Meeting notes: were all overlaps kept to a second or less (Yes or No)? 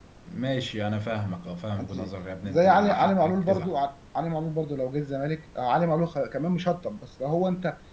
No